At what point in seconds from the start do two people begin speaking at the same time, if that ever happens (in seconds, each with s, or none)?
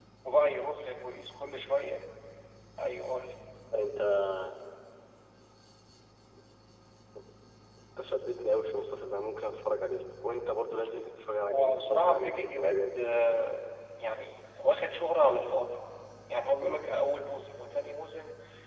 11.5 s